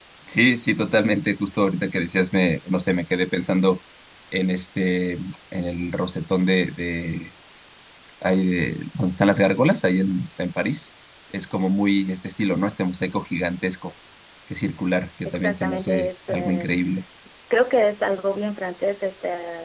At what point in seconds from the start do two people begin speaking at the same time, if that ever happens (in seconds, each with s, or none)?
15.2 s